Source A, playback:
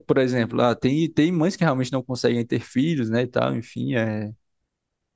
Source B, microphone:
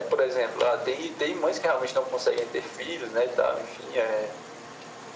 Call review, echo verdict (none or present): present